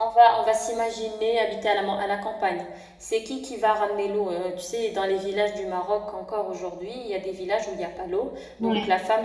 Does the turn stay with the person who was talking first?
Yes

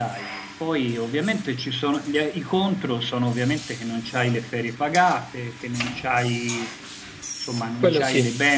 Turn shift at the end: No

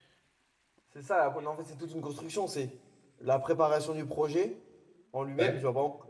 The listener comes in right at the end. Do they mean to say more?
No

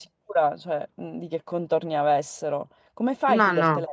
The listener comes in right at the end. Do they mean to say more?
No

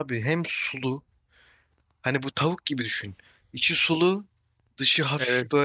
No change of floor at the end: Yes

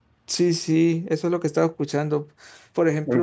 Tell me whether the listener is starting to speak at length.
No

